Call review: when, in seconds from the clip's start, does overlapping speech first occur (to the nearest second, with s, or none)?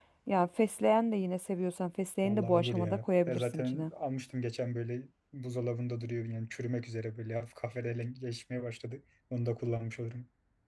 2 s